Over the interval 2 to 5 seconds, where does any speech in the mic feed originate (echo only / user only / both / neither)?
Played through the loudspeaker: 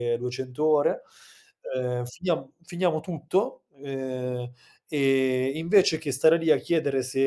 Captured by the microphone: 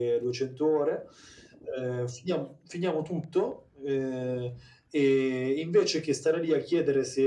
echo only